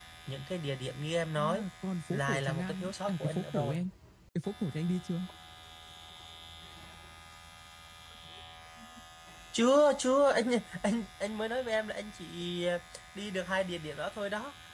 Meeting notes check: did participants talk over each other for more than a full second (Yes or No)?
Yes